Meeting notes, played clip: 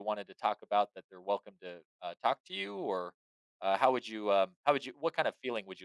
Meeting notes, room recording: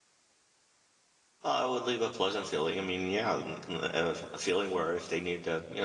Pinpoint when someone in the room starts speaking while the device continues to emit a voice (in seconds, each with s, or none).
1.4 s